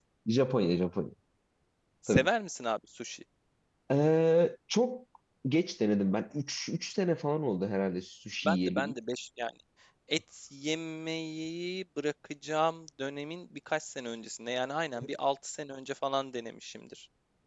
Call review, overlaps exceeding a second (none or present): none